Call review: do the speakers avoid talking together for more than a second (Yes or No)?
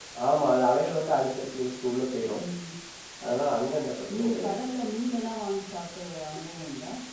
Yes